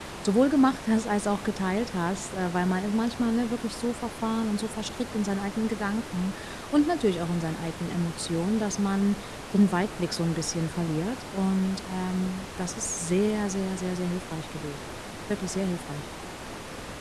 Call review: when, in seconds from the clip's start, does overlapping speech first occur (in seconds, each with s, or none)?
none